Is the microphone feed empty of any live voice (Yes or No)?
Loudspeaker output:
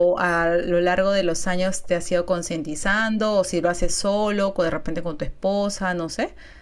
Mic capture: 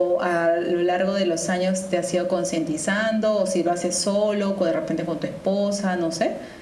Yes